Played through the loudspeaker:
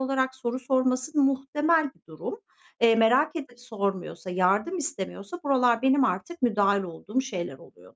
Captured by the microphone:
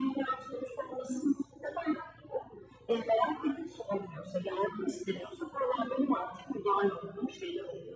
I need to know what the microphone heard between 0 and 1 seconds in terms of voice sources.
echo only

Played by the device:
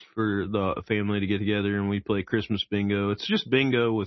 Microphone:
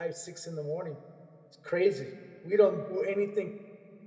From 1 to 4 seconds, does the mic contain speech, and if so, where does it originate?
user only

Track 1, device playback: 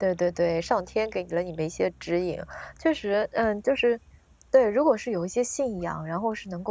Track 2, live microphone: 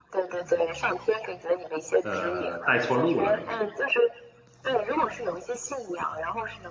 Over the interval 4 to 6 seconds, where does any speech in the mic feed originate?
echo only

